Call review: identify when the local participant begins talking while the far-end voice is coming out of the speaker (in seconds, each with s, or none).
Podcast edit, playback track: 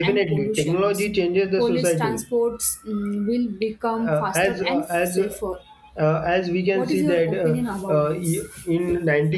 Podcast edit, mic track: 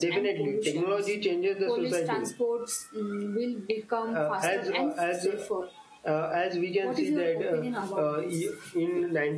none